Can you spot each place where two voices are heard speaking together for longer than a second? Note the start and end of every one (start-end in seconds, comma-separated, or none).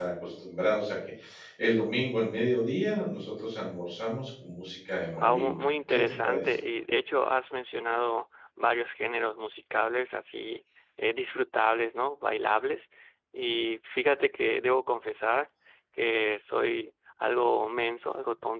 5.2-6.5